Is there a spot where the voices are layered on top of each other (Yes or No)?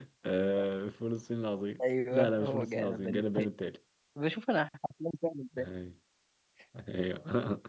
Yes